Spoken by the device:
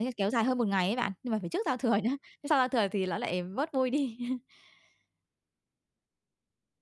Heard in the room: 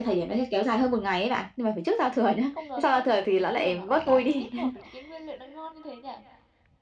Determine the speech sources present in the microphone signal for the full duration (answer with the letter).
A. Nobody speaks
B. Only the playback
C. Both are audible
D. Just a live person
C